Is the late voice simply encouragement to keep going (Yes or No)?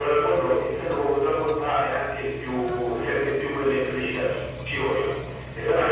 Yes